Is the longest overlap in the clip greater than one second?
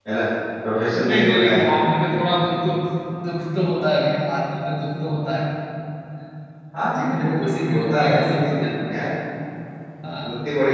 Yes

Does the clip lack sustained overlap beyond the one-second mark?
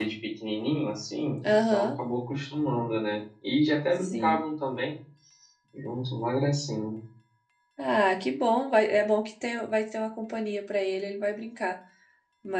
Yes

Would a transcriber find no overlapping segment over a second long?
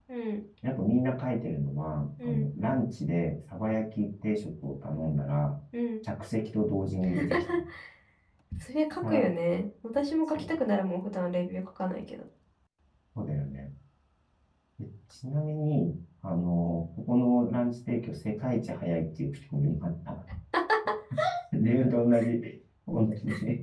Yes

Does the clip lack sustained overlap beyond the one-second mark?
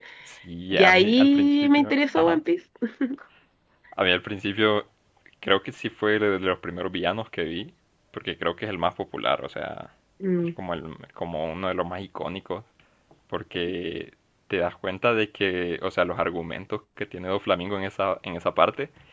No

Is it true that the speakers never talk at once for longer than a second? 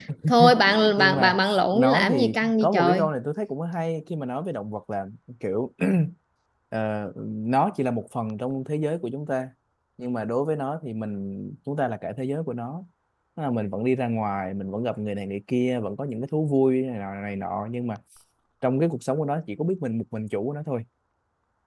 No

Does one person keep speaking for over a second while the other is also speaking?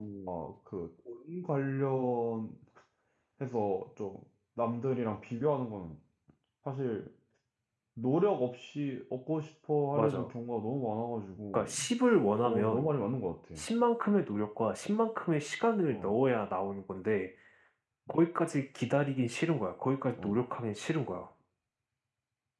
No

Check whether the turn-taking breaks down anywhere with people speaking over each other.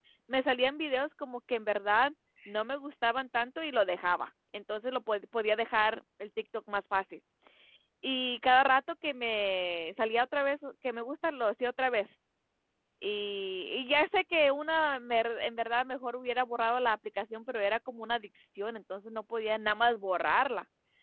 No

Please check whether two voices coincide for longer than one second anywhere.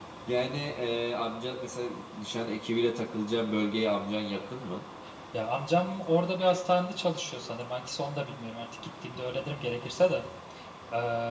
No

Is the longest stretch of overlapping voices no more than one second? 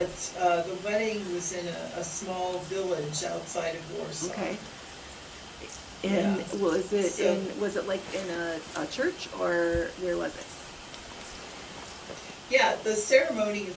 Yes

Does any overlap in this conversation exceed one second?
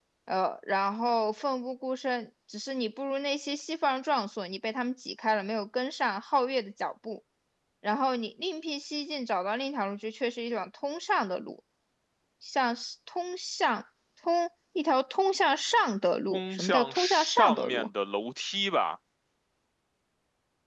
Yes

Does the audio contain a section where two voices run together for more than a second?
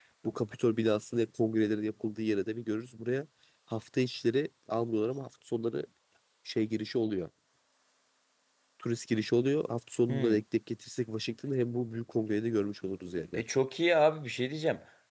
No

